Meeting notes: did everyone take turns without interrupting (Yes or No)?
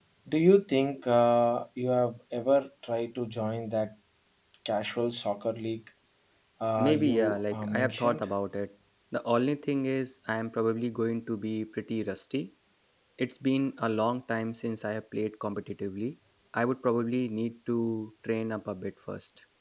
No